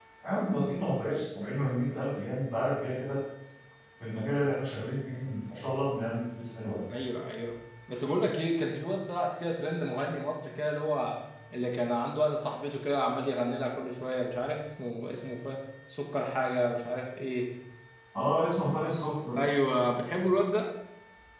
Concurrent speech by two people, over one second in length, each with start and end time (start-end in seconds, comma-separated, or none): none